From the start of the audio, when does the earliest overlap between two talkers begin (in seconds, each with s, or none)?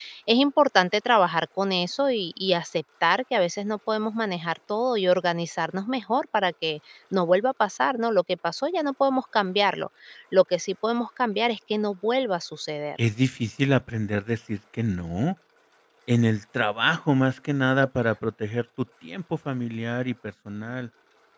none